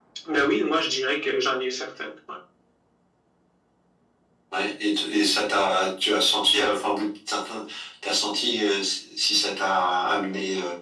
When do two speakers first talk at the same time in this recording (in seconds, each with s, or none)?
none